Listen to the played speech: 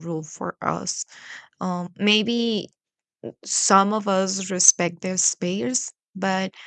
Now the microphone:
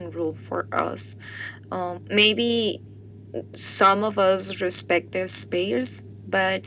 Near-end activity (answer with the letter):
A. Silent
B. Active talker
A